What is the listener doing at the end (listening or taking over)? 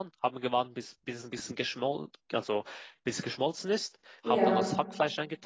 listening